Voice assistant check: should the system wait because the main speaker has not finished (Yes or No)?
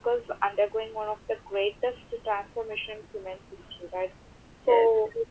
Yes